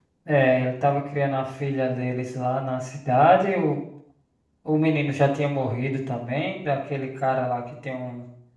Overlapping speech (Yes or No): No